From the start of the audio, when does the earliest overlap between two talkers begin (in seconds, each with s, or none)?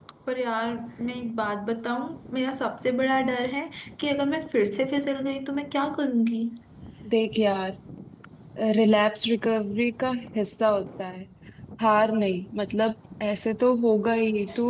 none